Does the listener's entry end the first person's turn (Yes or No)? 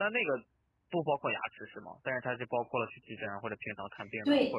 Yes